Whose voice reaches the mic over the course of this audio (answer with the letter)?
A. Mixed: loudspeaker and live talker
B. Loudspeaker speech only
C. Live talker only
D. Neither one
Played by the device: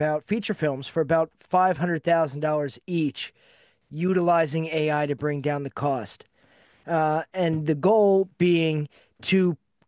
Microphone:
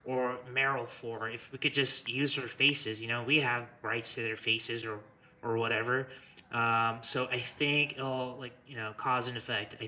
C